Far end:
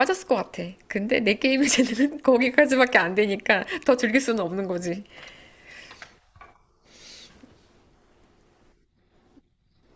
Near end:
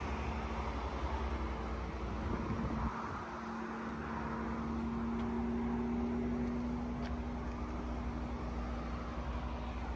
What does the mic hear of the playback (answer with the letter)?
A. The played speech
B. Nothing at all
B